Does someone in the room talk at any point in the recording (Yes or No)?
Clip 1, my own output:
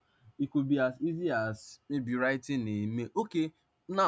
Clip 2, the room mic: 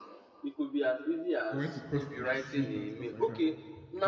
Yes